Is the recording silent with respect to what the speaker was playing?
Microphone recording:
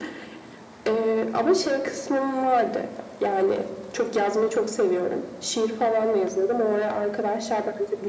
No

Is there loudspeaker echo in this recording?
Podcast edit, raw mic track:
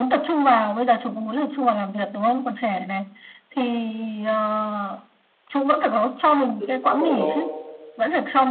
Yes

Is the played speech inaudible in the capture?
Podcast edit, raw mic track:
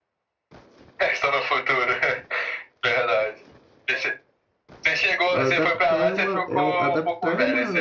No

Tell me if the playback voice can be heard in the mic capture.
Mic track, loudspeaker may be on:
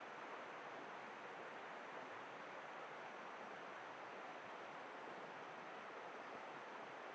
No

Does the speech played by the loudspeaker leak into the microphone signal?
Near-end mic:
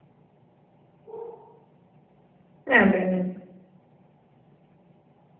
No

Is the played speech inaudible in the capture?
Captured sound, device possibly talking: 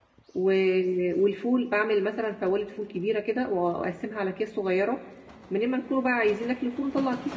Yes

